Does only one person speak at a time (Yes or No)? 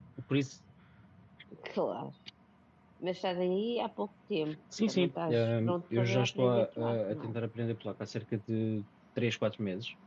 No